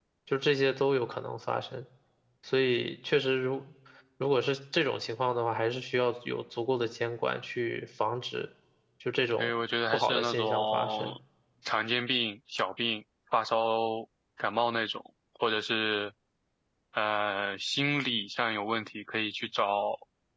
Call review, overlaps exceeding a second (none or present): present